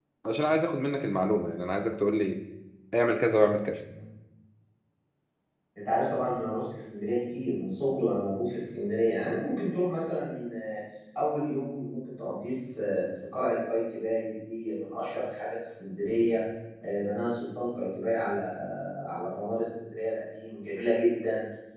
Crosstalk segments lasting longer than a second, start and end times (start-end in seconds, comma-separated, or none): none